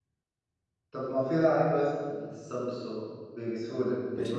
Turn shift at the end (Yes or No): Yes